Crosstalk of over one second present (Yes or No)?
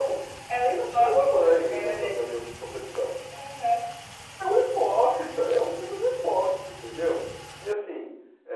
Yes